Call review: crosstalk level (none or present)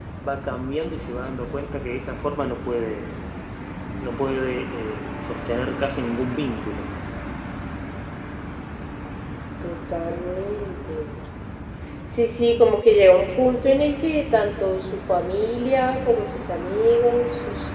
none